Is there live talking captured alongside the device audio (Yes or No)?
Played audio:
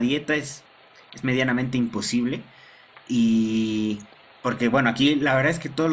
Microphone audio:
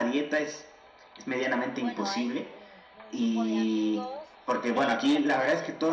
Yes